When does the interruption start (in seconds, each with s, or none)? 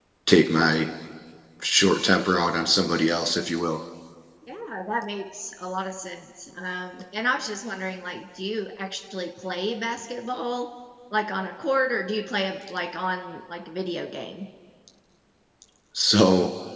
none